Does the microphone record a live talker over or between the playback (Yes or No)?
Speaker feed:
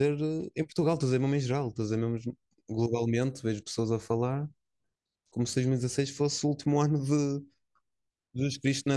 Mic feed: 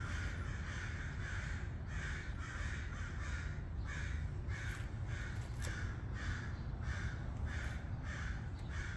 No